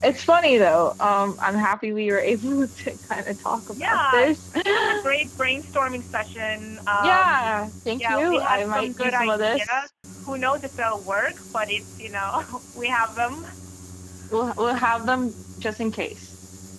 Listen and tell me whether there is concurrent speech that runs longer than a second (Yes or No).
Yes